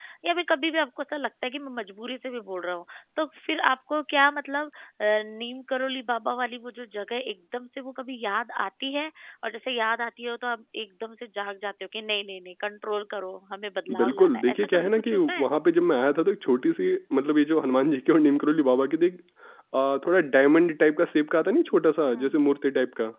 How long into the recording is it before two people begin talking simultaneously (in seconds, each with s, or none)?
13.9 s